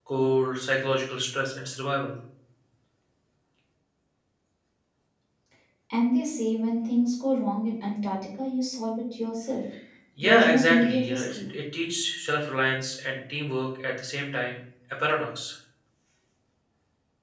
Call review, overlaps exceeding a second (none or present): present